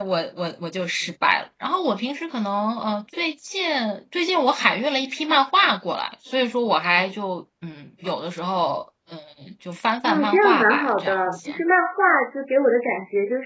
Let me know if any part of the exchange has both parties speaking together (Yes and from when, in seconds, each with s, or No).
Yes, from 10.0 s